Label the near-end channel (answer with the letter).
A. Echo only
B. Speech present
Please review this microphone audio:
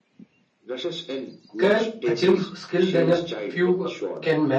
B